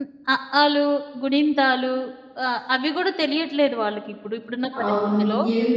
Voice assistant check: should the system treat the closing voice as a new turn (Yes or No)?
Yes